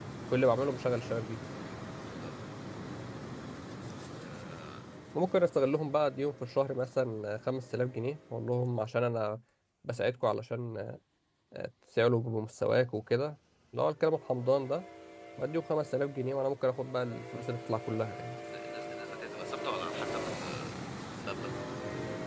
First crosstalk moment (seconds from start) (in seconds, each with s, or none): none